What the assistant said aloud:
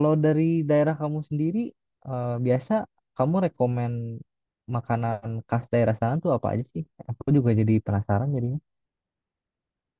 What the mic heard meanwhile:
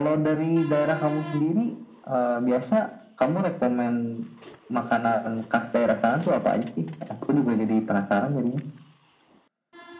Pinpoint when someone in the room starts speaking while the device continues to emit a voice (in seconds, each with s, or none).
none